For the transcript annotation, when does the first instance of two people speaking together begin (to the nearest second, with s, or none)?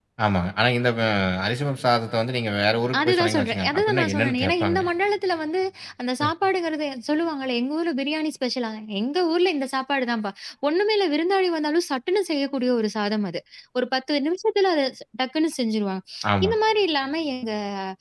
3 s